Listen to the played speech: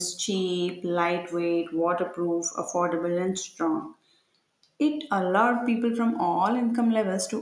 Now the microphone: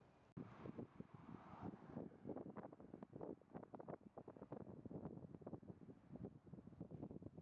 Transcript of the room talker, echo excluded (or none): none